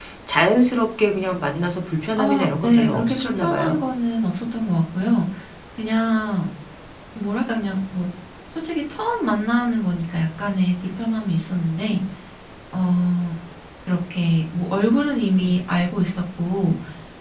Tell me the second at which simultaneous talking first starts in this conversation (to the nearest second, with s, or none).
2 s